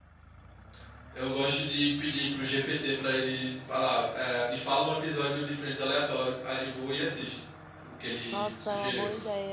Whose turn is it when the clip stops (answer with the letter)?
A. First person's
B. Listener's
B